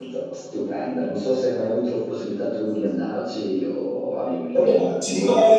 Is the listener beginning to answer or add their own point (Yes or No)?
Yes